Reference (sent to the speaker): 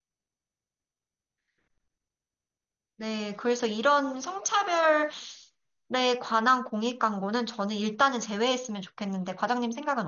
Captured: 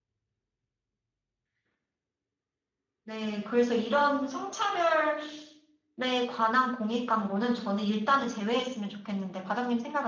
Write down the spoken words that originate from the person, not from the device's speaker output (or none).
none